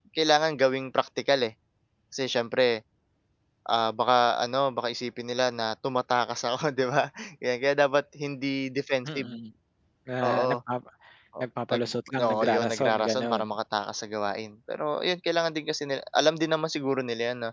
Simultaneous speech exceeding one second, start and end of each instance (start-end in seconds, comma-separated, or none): 12.2-13.4